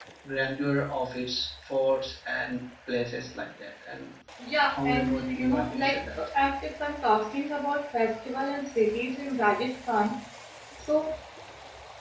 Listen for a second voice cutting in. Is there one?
Yes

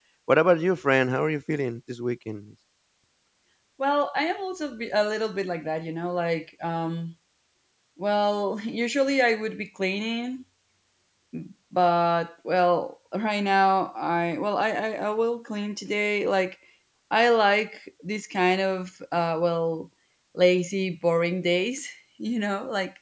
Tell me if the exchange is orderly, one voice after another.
Yes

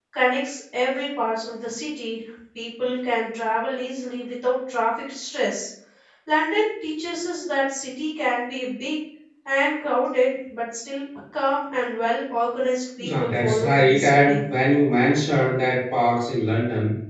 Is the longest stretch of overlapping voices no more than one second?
No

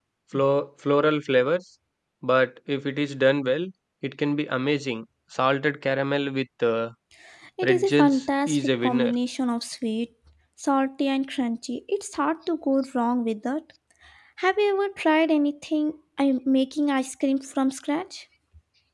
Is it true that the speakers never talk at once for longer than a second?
No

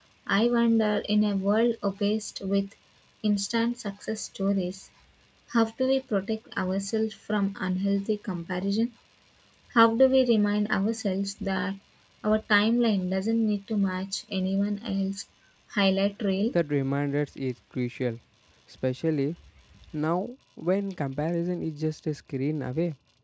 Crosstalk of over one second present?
No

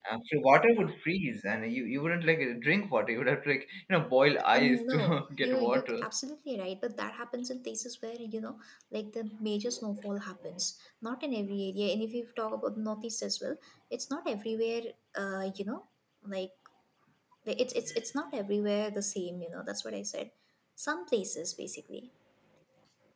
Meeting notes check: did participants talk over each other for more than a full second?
Yes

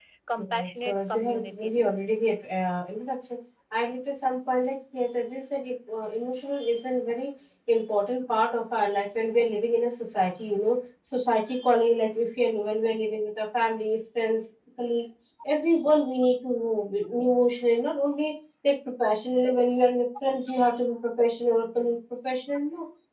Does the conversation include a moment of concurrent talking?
Yes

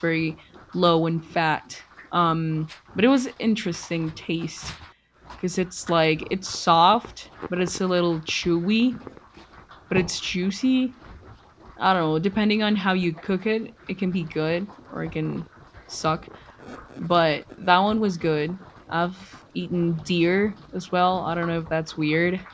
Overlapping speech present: No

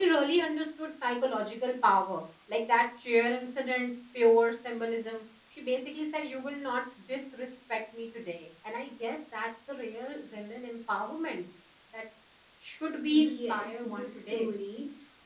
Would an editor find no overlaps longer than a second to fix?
No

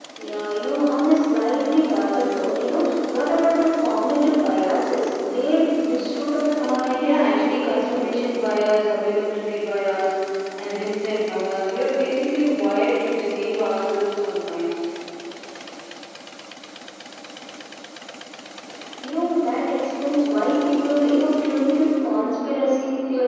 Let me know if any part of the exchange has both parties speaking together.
Yes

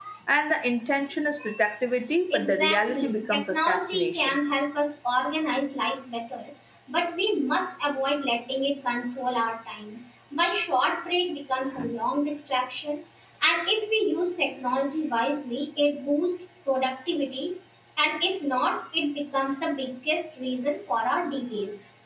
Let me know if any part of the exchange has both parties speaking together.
Yes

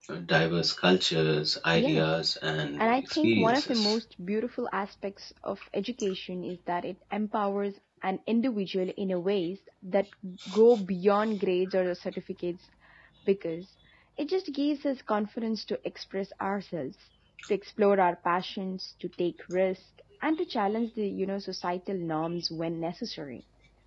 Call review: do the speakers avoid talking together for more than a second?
No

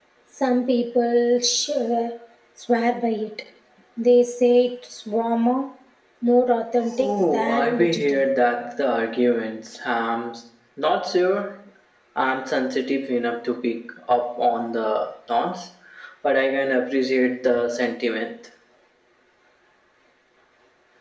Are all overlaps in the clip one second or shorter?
No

